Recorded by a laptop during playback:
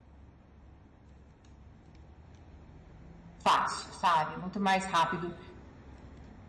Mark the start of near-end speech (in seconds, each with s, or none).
3.4 s